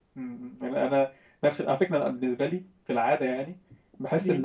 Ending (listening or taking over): listening